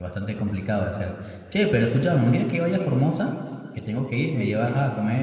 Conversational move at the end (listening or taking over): listening